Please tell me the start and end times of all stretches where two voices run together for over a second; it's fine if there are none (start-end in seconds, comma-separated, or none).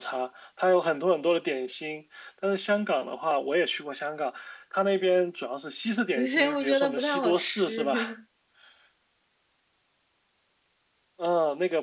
6.1-7.9